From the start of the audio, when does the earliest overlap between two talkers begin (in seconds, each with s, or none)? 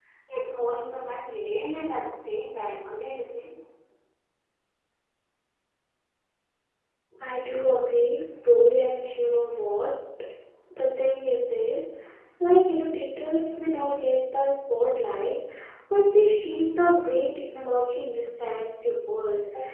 none